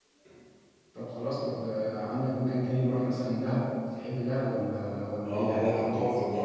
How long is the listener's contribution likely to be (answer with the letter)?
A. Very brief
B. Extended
B